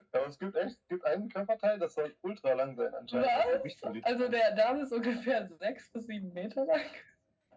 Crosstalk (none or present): present